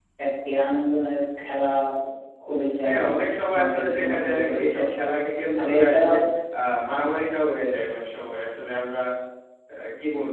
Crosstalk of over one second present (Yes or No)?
Yes